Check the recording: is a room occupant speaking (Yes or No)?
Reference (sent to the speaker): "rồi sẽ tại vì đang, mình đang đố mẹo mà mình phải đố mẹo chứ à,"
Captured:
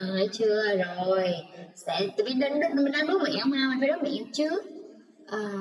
No